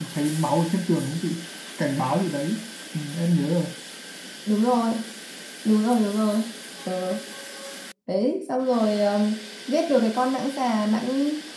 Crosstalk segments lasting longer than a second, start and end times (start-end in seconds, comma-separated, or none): none